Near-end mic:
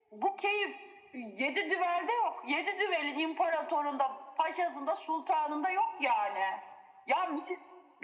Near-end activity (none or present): none